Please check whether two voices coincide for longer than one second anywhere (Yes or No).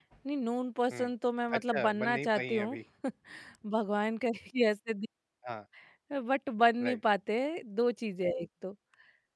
Yes